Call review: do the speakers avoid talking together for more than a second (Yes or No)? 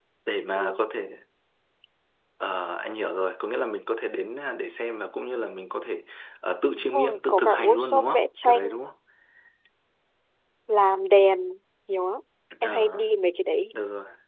No